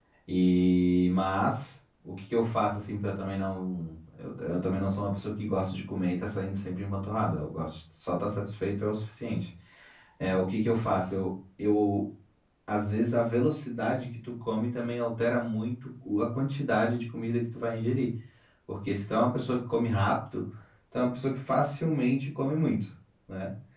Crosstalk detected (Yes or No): No